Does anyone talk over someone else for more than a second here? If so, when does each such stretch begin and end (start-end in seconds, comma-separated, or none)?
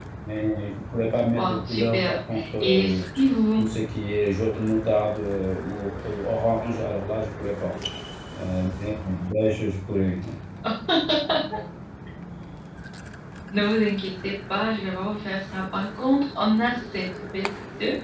1.4-3.0